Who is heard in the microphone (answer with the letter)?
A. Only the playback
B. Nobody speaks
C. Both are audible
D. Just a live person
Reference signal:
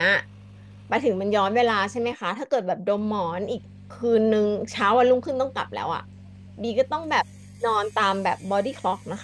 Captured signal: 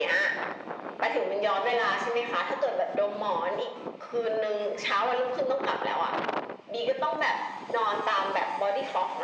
A